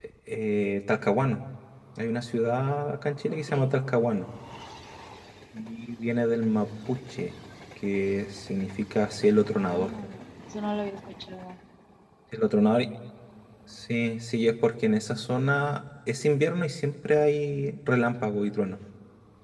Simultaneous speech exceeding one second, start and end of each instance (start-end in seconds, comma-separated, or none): none